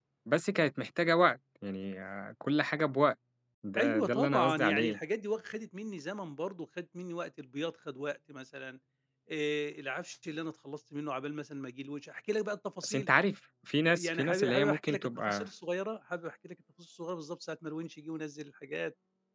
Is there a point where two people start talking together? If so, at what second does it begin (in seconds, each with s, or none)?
3.8 s